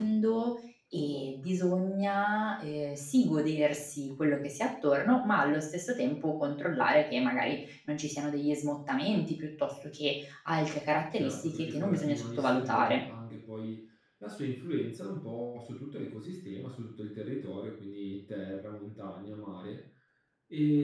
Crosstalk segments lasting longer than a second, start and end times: 11.1-13.0

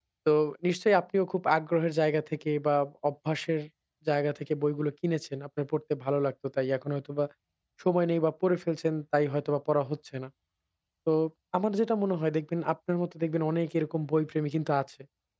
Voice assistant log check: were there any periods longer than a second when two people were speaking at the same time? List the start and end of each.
none

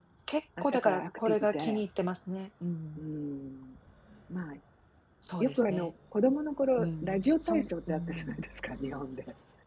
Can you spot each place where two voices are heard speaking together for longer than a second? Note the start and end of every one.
0.6-1.8, 6.8-8.4

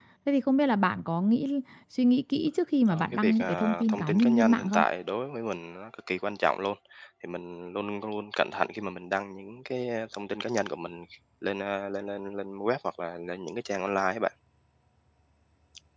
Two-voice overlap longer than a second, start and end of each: 2.9-4.8

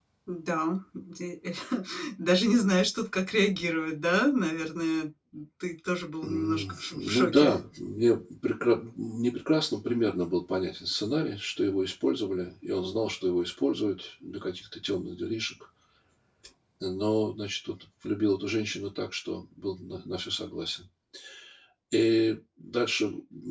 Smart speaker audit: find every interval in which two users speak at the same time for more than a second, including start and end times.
6.2-7.5

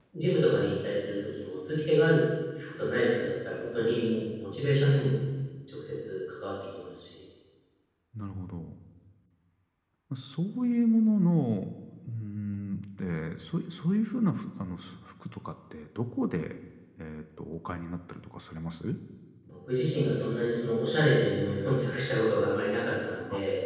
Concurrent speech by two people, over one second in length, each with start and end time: none

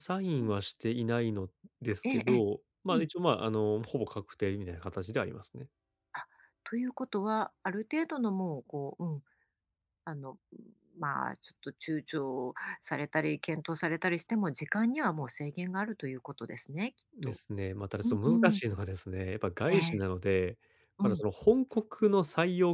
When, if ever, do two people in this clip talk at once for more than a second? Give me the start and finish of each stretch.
none

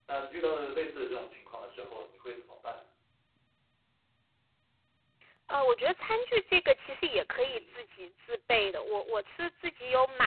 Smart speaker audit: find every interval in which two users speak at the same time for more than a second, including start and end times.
none

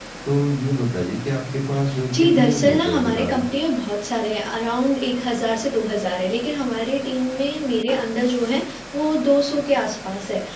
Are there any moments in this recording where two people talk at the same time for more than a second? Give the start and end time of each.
2.1-3.4

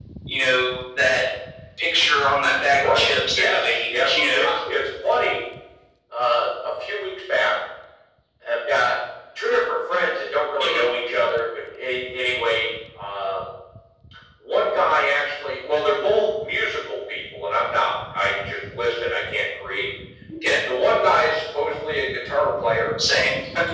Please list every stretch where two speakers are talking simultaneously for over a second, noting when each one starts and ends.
2.8-4.4

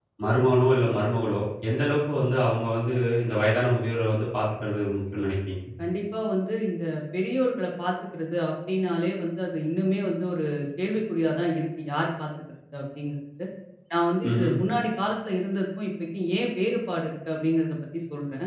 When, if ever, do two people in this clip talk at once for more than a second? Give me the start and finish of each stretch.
none

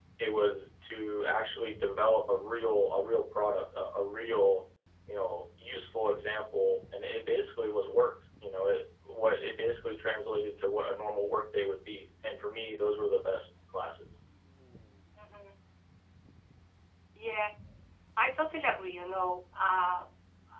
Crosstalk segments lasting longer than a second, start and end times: none

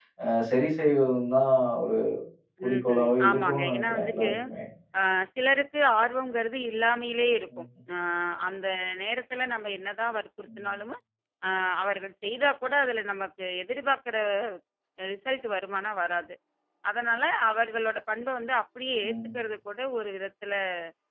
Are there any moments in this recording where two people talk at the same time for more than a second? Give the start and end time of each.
2.7-4.3

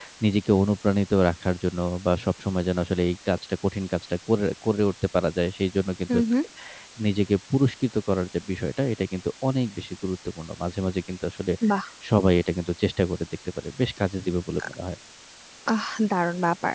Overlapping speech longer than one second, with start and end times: none

